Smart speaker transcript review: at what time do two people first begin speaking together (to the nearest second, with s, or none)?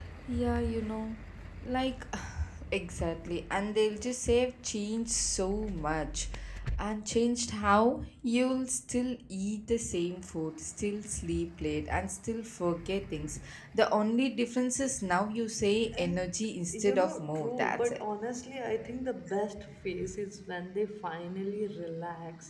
16 s